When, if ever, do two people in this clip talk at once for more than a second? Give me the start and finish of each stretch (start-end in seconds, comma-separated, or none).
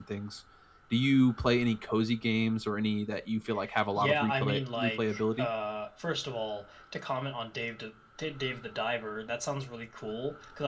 4.0-5.5